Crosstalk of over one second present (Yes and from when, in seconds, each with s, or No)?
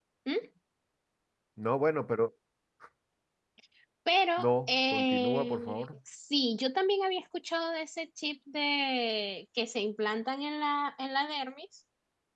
Yes, from 4.4 s